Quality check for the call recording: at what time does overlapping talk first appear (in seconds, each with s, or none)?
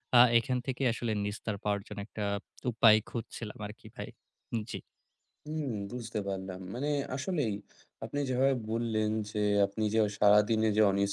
none